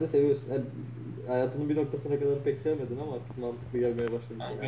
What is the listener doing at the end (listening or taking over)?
taking over